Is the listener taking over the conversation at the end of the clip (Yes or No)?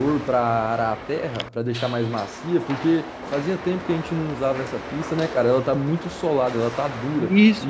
Yes